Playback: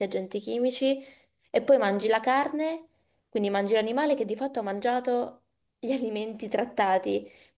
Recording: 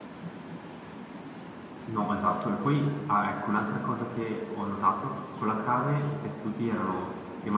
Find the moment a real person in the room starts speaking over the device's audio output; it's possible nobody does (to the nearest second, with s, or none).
2 s